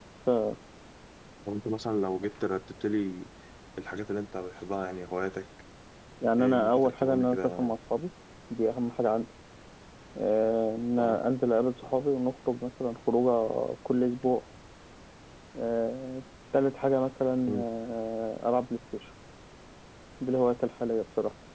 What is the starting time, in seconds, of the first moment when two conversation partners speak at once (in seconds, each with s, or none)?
6.4 s